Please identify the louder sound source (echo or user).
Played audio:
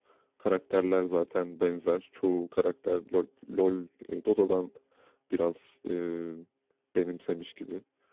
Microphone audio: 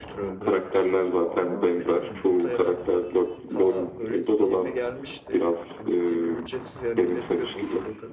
echo